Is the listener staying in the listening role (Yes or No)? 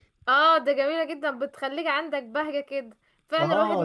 No